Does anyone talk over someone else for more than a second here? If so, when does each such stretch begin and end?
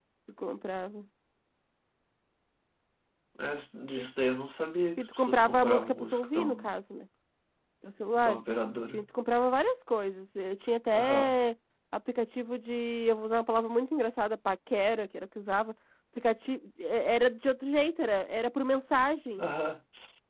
5.0-6.7

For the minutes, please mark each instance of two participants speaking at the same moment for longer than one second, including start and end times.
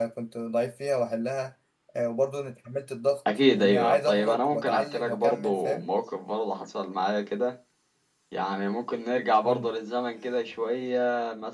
3.5-5.9

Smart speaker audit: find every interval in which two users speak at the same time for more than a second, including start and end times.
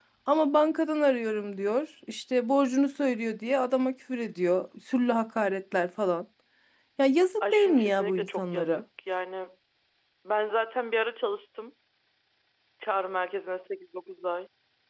7.4-8.8

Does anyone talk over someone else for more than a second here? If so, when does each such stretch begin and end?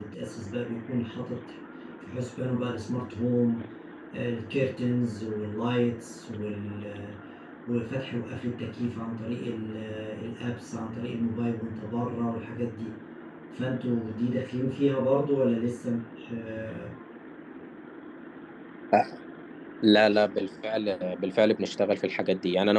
none

